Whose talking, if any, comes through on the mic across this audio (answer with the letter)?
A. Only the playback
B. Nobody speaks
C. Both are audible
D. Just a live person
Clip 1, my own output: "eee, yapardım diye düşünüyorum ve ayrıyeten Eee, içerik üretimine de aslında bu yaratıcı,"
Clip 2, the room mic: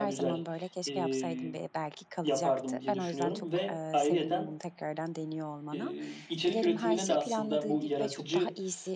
C